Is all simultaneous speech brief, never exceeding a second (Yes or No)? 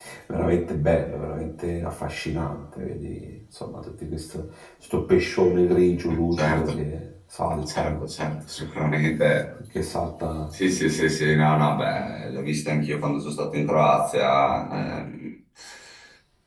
Yes